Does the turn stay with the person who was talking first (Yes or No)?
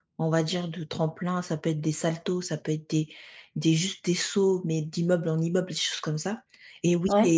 Yes